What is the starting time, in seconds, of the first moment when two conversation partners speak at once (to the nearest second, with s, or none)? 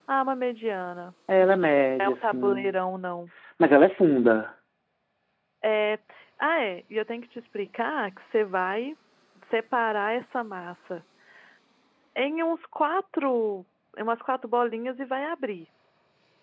1 s